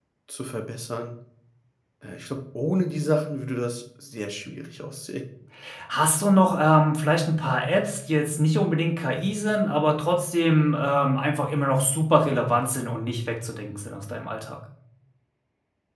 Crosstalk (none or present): none